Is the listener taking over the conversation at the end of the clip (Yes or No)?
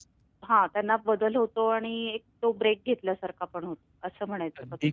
Yes